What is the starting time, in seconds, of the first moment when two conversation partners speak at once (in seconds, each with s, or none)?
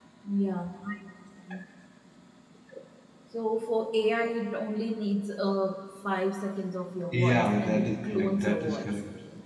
7.1 s